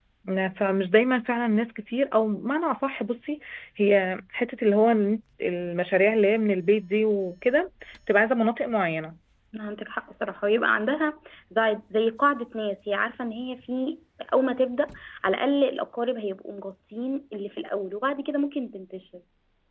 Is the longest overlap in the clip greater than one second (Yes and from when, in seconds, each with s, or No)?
No